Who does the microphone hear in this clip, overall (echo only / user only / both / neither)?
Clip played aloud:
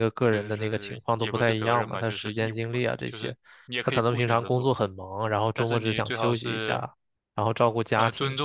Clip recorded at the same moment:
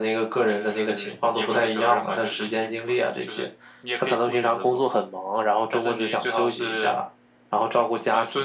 echo only